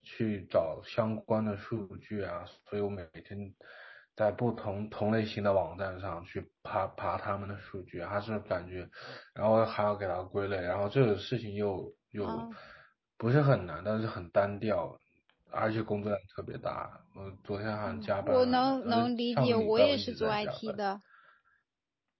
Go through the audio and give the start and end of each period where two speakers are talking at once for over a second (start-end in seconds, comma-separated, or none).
17.9-20.7